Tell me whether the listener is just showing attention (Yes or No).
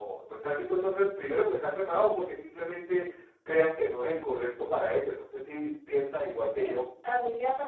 No